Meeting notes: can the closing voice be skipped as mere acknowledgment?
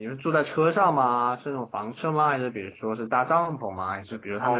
No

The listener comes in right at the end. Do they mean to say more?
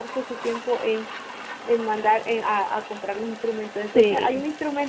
No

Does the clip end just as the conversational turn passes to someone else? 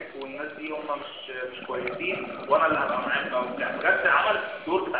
No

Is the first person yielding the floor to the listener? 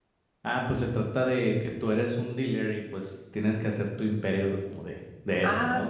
Yes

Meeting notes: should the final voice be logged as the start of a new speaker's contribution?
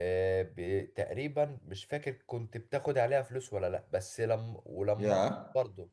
No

